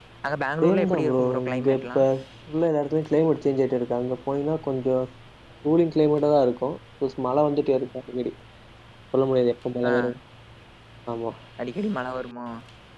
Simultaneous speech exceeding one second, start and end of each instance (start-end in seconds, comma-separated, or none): 0.6-2.0